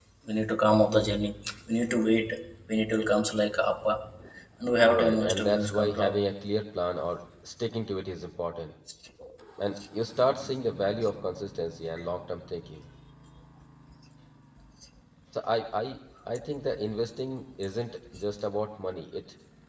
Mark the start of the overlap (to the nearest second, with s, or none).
5 s